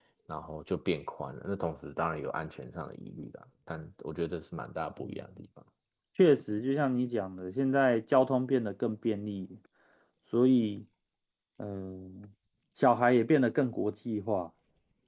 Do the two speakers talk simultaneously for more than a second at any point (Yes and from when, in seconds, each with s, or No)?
No